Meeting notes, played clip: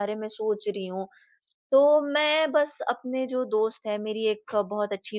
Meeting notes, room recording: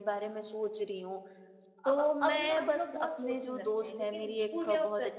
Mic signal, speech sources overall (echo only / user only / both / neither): both